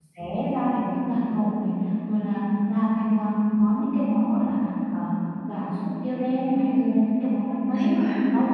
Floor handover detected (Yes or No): No